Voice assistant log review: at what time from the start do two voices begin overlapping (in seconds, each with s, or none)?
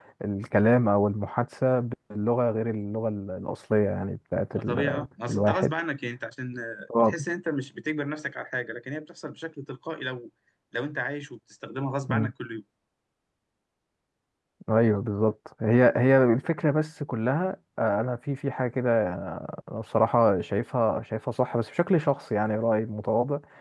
4.5 s